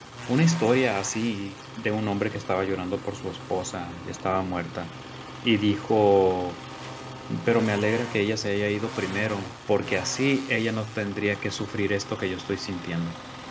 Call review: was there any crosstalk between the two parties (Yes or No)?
No